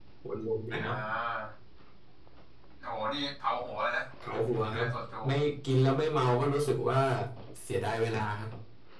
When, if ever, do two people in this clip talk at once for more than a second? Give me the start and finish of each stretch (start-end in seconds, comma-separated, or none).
none